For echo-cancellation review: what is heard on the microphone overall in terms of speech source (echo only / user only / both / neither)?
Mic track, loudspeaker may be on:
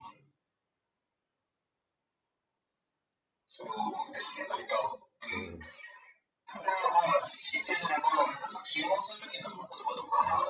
both